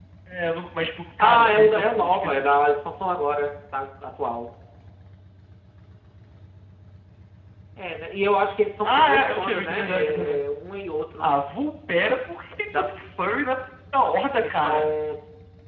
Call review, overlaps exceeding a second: present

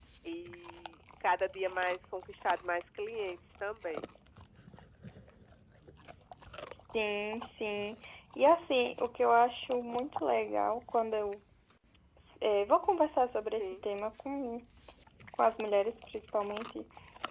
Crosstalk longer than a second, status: none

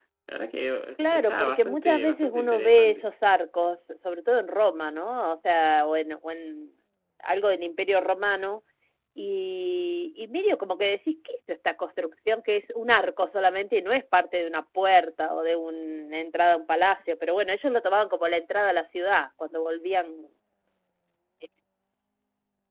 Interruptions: present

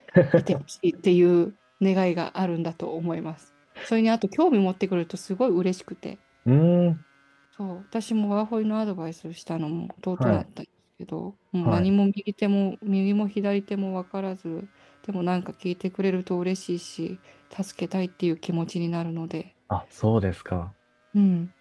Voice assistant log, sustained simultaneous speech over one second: none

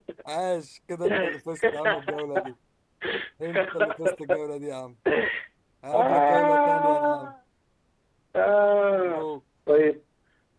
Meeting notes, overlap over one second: present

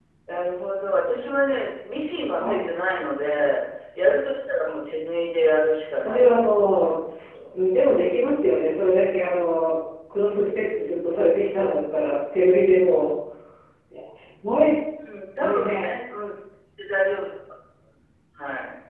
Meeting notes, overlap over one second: present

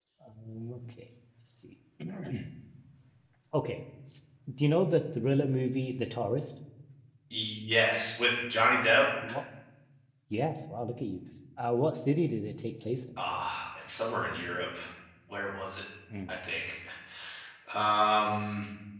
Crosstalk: none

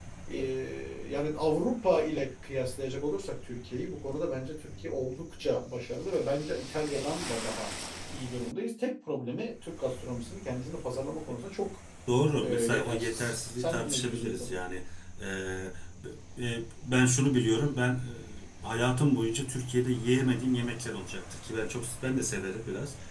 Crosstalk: present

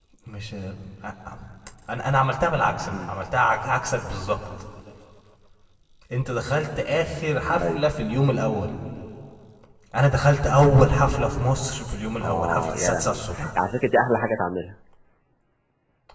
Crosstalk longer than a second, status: present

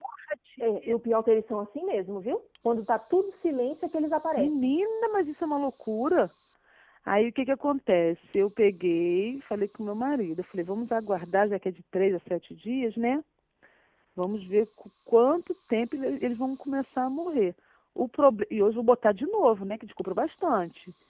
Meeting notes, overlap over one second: none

